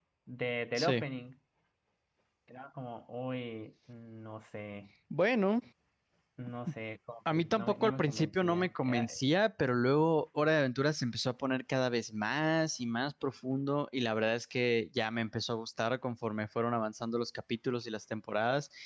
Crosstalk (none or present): present